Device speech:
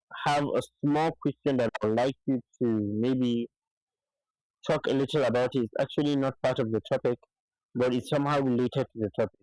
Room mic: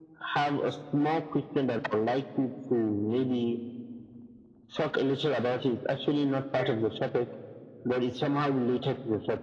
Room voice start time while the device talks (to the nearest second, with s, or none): 7 s